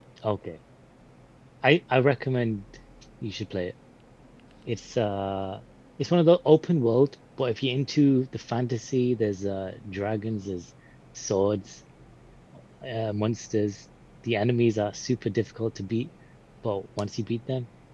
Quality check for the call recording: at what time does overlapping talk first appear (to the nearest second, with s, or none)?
none